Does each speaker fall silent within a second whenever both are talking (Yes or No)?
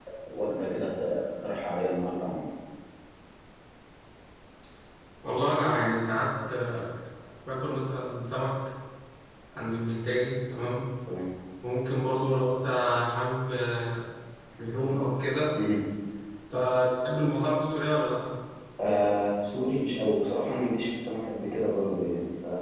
Yes